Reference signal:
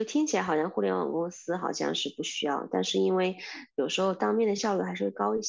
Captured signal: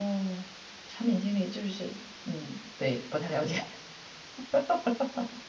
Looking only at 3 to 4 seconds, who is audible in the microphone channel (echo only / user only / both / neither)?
user only